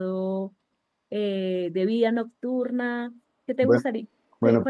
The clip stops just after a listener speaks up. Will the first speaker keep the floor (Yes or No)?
No